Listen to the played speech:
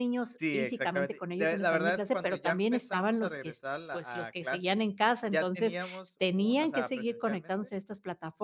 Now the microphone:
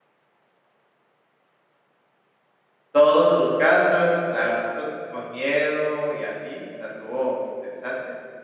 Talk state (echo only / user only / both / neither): user only